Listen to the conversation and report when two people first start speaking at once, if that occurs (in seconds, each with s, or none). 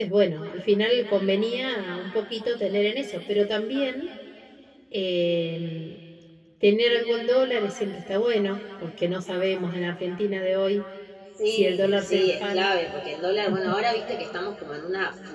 11.5 s